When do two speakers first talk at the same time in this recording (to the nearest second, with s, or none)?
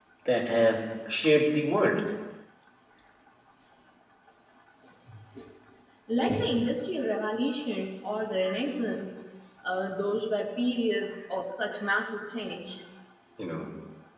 none